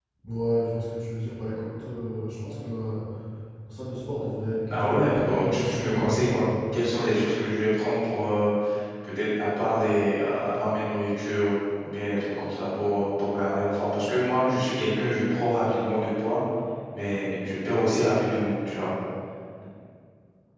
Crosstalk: present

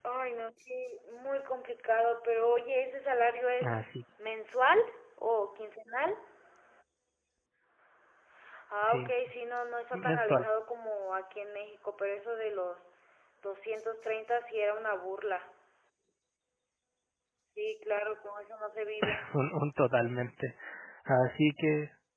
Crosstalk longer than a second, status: none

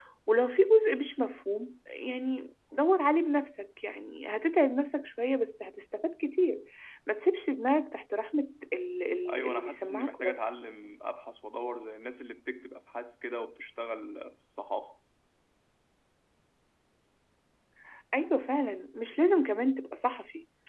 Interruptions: present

